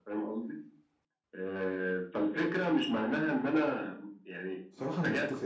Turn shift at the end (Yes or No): Yes